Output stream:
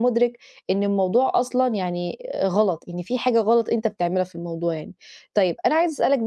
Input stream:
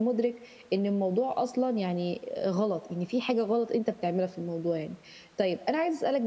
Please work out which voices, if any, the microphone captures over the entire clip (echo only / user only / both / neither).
echo only